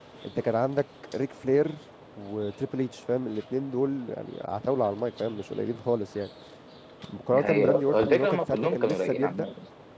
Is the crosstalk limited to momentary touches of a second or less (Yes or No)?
No